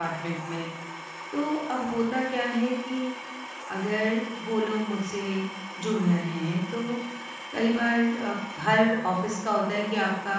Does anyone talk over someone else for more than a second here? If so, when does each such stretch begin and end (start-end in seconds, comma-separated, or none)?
none